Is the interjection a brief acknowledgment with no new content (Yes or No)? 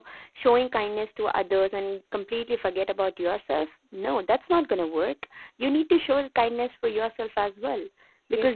Yes